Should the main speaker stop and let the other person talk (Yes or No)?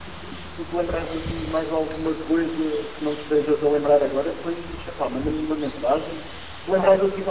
No